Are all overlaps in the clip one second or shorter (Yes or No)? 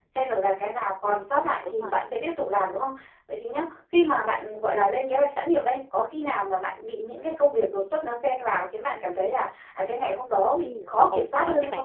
No